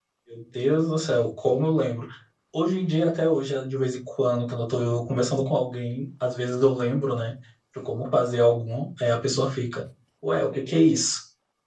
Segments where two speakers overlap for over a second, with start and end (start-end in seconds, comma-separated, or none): none